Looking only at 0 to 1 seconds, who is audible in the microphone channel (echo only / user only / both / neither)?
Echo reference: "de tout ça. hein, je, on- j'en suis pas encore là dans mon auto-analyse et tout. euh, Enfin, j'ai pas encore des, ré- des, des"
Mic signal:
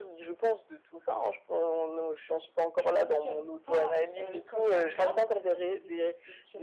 echo only